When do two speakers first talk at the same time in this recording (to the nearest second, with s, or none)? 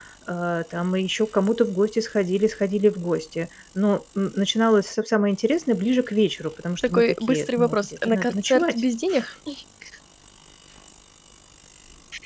7 s